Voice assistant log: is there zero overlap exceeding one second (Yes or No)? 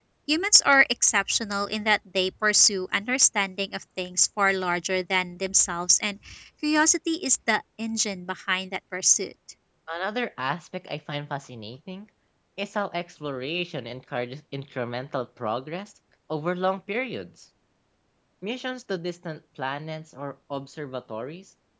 Yes